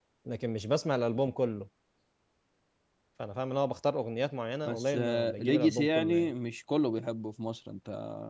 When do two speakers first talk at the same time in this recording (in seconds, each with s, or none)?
4.7 s